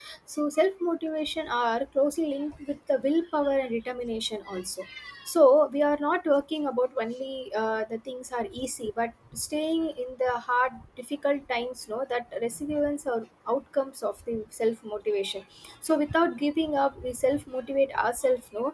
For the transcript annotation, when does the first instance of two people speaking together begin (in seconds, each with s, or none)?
none